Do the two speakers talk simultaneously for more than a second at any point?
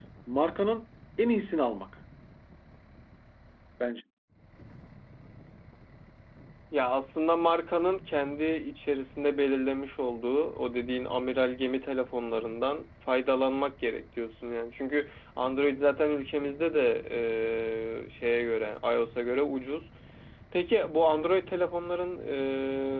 No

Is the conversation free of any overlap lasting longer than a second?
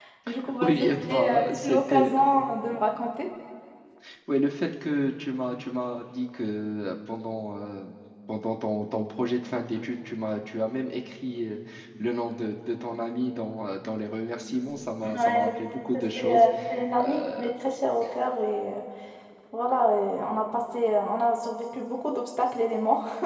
No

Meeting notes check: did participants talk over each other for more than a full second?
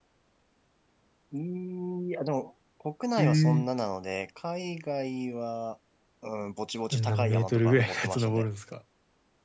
Yes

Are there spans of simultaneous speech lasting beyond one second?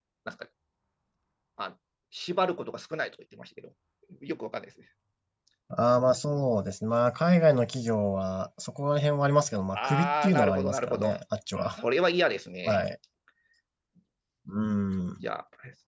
Yes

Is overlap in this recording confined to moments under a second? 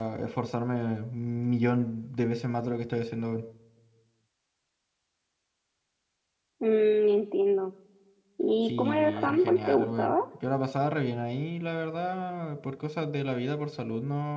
No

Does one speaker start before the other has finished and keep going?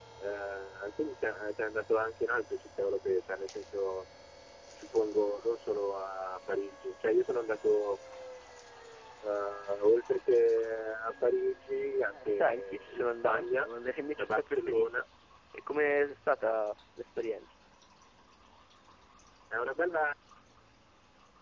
Yes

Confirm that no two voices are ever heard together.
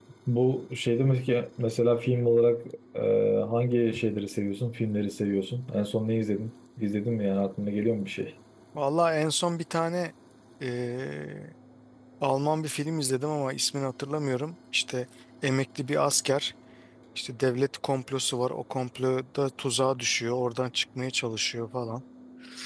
Yes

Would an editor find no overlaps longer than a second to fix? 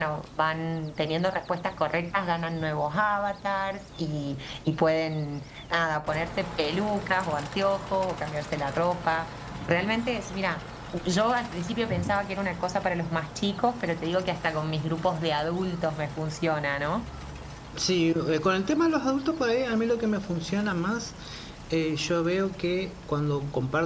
Yes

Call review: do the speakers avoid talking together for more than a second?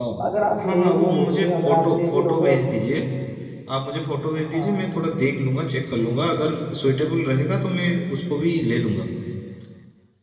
No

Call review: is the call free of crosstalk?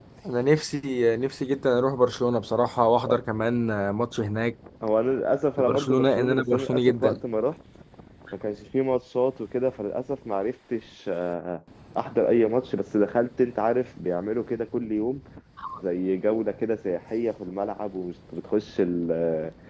No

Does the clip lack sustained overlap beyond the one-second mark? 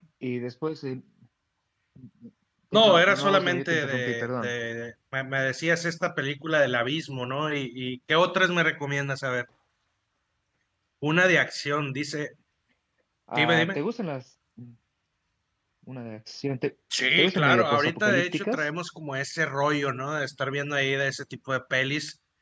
No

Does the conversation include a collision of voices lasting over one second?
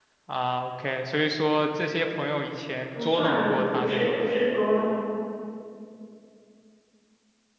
Yes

